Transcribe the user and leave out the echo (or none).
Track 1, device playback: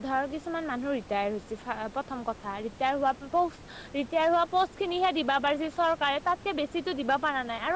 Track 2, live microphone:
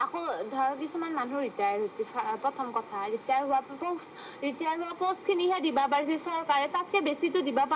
none